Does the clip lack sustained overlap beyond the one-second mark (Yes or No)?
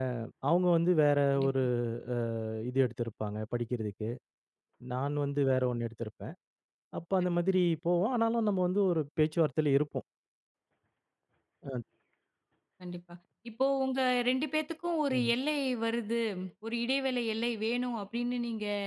Yes